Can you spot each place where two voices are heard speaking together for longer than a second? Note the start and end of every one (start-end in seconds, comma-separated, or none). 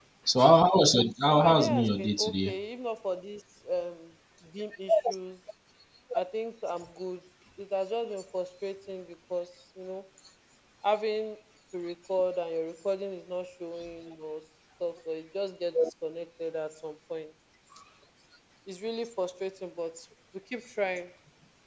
1.3-2.5